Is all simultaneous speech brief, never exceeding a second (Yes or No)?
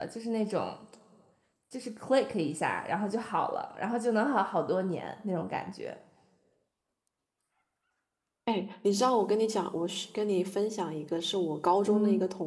Yes